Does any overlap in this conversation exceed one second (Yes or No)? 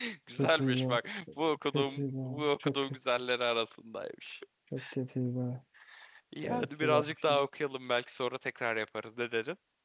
Yes